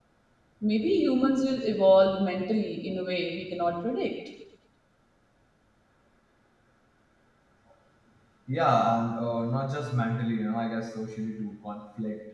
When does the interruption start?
none

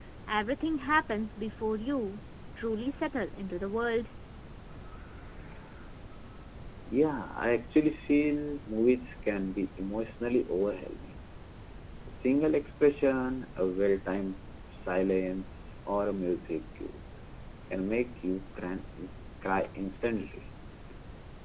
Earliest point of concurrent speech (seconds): none

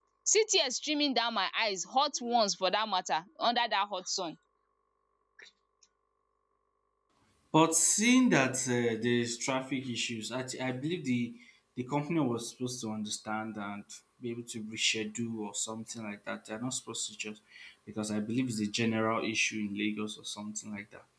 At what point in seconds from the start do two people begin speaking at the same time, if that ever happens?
none

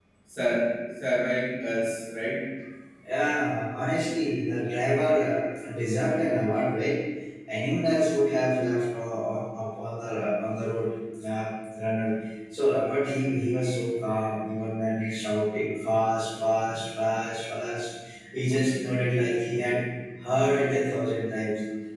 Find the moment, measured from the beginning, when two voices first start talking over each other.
none

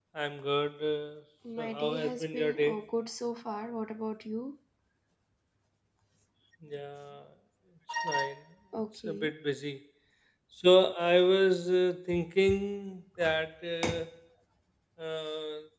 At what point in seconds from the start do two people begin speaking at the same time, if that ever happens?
2 s

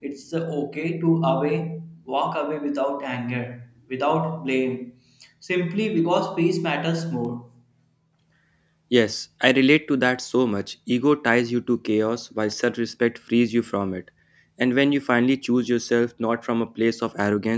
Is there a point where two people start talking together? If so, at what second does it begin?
none

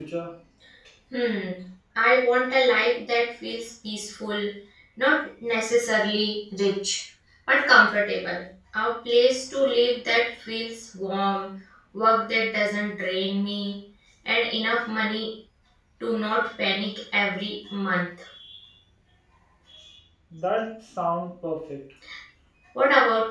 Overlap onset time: none

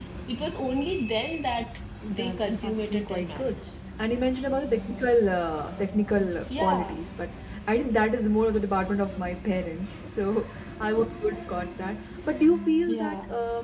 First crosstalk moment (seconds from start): 2 s

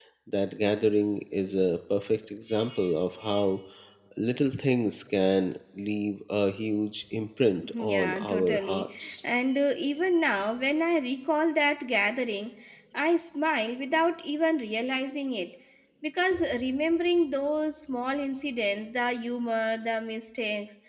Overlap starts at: 8 s

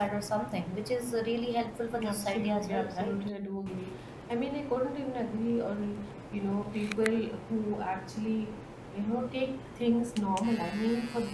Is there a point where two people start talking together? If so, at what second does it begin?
2 s

